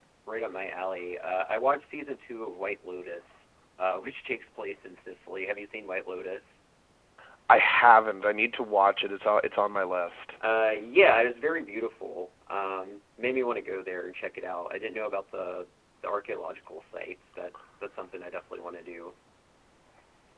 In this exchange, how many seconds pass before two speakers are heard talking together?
none

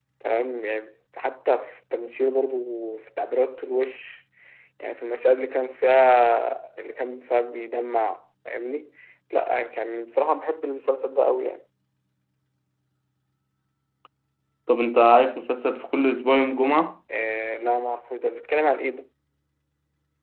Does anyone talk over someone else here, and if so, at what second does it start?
none

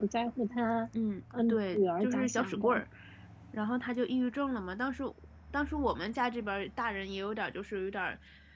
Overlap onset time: 1 s

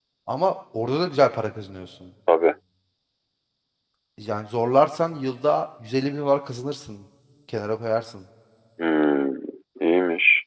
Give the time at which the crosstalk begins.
none

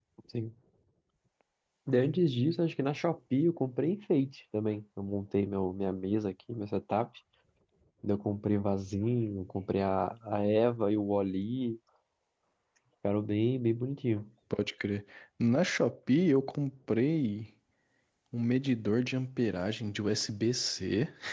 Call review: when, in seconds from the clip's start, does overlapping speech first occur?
none

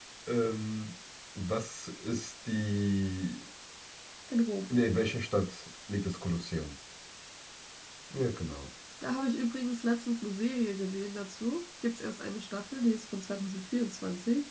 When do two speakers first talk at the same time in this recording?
none

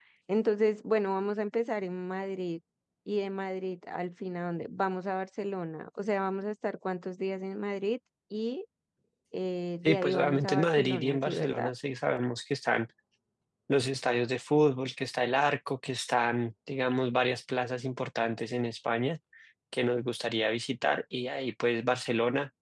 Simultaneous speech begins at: 10 s

